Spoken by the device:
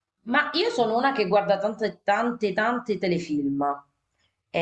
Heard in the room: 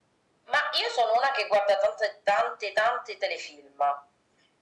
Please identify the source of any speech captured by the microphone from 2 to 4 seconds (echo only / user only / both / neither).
echo only